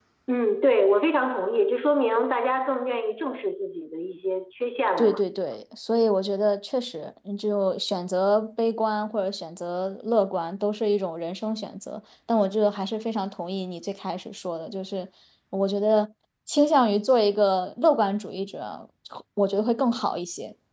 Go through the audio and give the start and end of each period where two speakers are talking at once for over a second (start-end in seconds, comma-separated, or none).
none